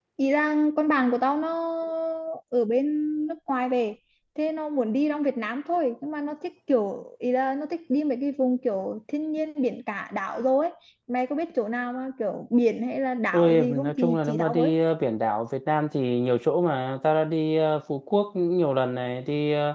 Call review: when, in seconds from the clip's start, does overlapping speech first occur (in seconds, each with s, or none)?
13.3 s